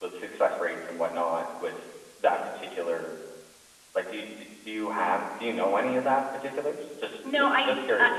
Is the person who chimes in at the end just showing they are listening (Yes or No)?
No